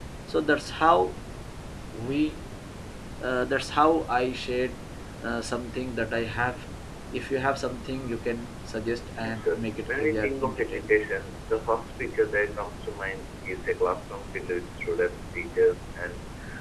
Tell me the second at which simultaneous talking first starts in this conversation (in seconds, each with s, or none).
9.2 s